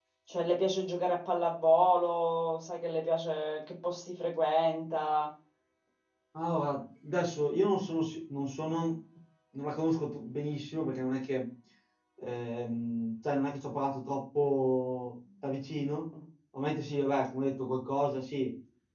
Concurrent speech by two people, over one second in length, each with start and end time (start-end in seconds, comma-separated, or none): none